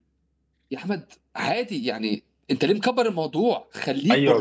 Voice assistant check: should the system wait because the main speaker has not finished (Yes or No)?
No